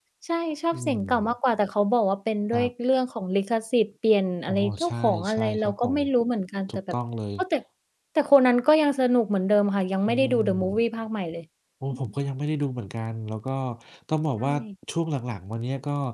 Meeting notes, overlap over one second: present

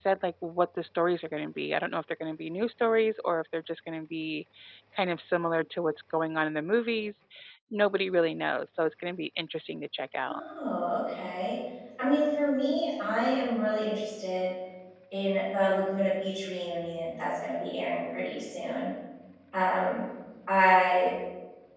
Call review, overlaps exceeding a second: none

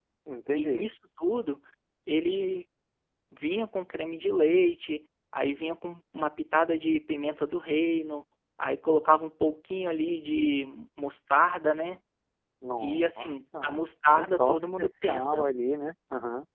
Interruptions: present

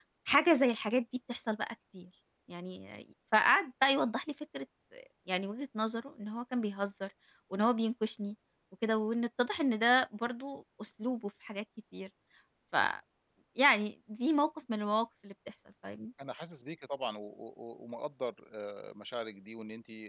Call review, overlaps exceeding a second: none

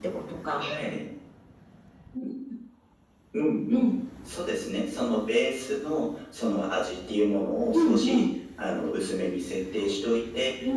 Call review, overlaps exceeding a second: none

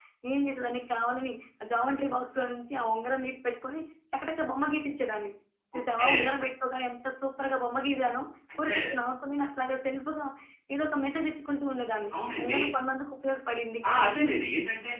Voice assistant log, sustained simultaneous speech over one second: none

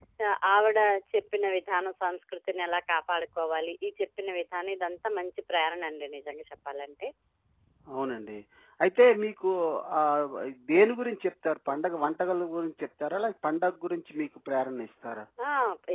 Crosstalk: none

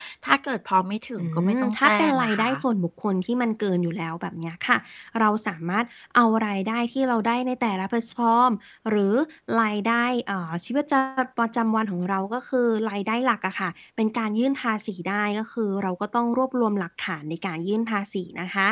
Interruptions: present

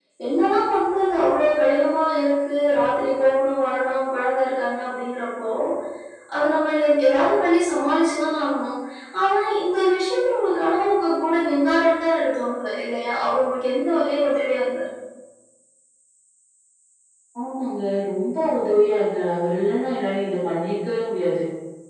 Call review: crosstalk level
none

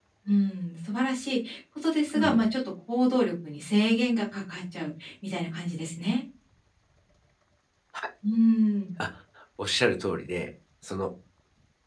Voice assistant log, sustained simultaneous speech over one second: none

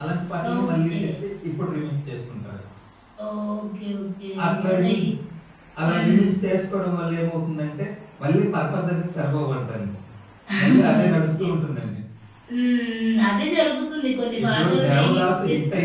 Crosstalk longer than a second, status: present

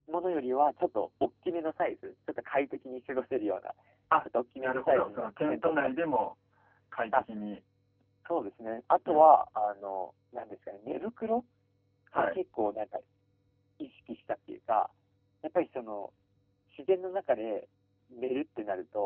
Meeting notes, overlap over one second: present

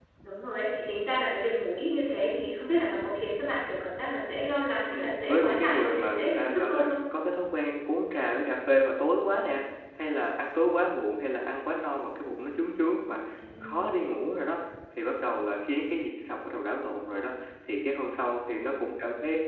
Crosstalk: present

